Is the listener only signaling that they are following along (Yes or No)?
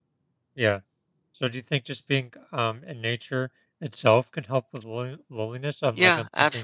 No